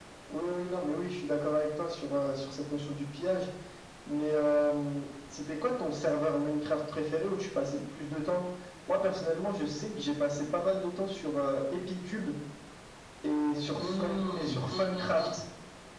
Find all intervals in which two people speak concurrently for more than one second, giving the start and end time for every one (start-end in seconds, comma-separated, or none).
13.8-15.3